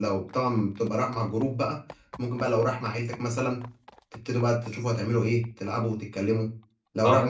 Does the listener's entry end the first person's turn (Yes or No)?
No